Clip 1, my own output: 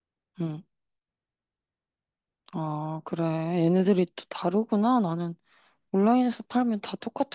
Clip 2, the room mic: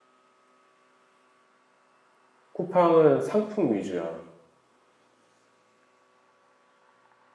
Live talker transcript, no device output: 쿠팡은 상품 위주야.

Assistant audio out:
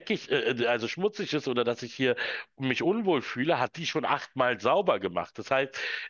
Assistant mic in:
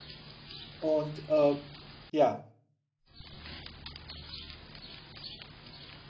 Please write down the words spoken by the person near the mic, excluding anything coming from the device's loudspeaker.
Und äh, ja,

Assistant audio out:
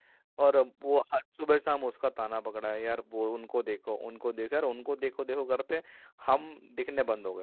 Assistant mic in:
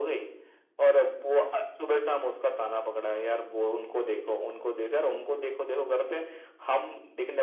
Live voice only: none

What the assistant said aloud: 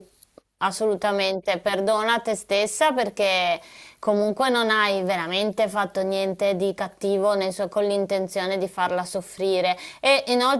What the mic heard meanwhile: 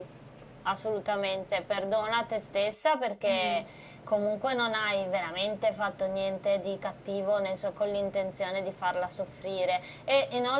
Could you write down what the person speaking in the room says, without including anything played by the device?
Eh,

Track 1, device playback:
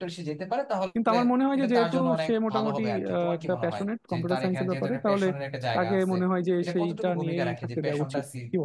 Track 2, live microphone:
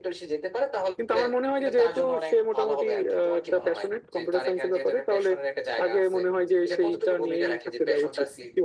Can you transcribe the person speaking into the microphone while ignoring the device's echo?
none

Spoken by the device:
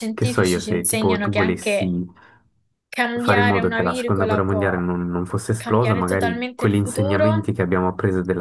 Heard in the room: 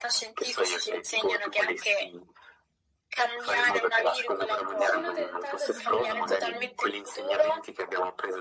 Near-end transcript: sono tentata di dire animali,

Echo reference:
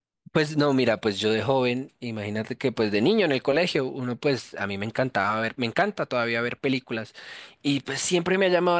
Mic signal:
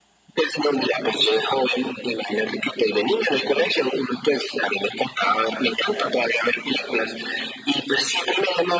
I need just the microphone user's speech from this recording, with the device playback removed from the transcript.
none

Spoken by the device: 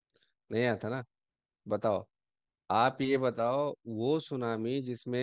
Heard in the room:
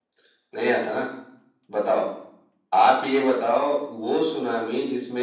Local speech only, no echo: none

